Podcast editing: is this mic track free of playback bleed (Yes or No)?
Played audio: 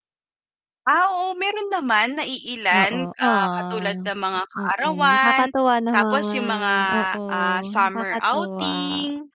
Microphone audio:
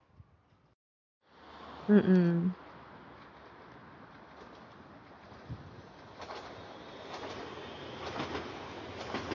Yes